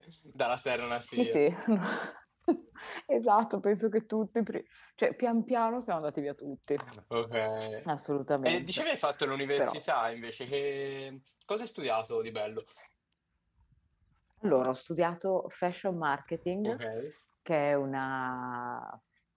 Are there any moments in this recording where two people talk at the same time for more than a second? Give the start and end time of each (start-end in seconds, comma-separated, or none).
none